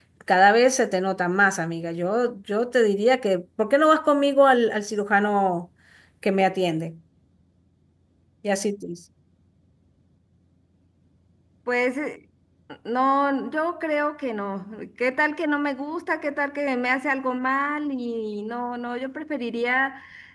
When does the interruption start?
none

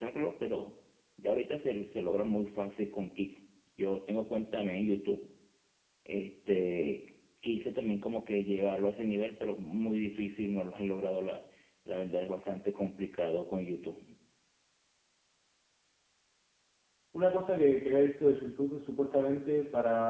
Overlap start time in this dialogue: none

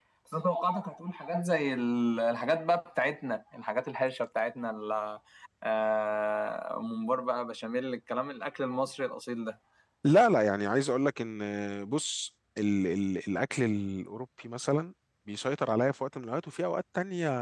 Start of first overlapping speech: none

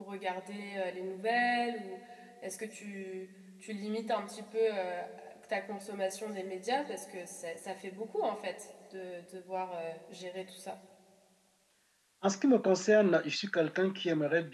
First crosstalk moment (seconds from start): none

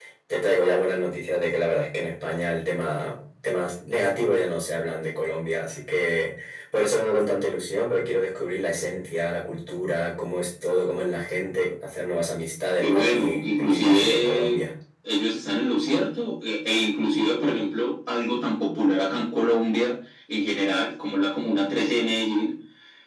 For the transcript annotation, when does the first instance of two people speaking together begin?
13 s

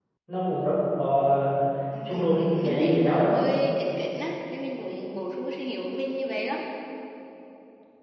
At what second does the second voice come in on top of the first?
2 s

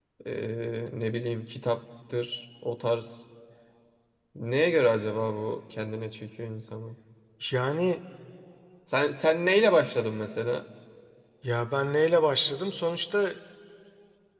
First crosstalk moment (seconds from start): none

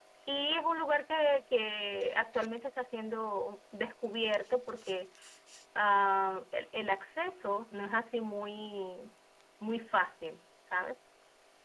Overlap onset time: none

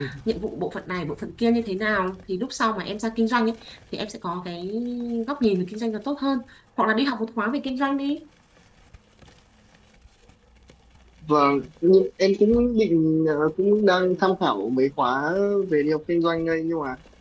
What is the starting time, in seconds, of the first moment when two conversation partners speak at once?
none

